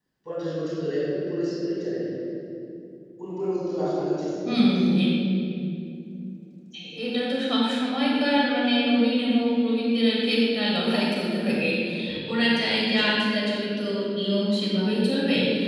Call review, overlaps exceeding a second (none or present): none